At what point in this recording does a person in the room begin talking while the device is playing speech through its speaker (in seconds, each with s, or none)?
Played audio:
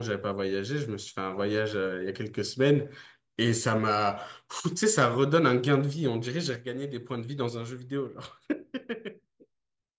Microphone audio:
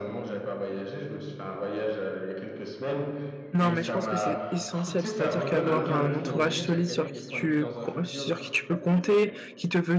3.5 s